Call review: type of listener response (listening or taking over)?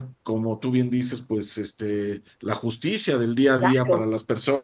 listening